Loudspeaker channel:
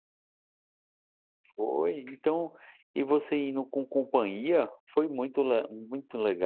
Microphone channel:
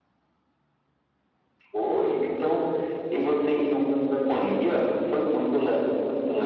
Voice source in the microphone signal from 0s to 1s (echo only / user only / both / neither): neither